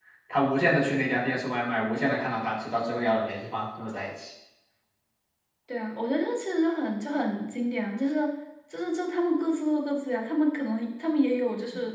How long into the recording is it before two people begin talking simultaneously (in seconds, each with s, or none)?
none